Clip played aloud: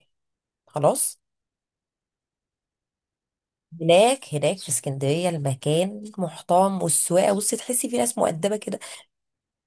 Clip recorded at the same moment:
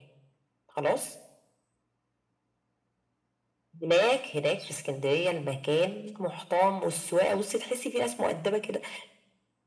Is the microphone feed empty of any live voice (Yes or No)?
Yes